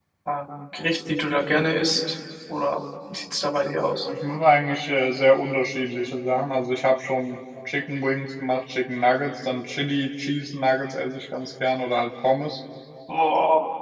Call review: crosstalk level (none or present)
none